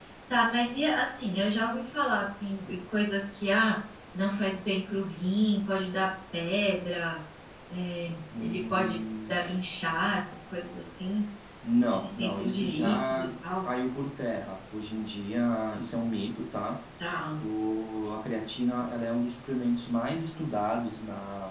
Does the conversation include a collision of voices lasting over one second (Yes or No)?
Yes